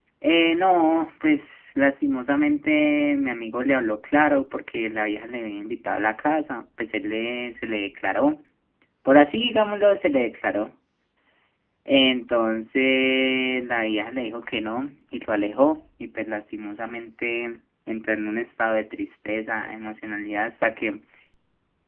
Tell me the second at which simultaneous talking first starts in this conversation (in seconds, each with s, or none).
none